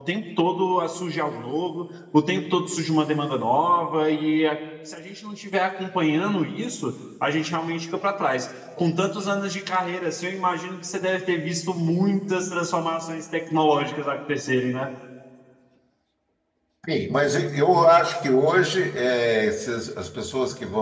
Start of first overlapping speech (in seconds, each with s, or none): none